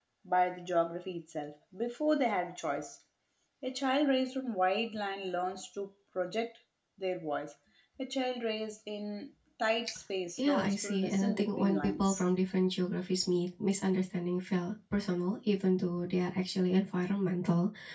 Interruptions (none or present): present